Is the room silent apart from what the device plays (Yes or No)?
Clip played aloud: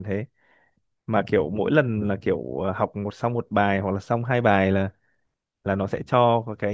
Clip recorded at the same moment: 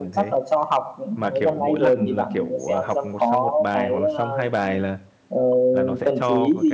No